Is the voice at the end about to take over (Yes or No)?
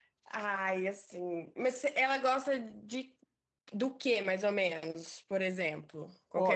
Yes